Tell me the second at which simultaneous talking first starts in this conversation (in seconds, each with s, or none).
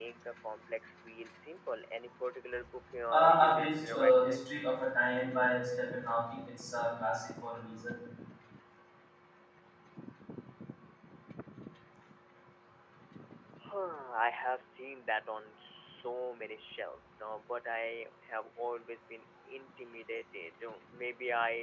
3.1 s